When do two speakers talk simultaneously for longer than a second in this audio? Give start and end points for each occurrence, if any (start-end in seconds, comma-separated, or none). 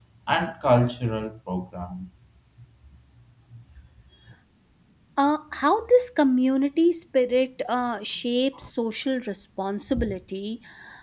none